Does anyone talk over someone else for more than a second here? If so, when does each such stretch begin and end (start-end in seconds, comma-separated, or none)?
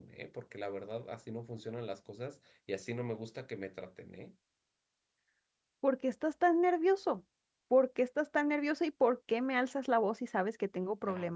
none